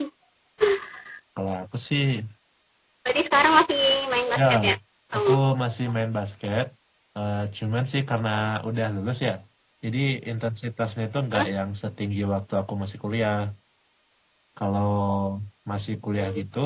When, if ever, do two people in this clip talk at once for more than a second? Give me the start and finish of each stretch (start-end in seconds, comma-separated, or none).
none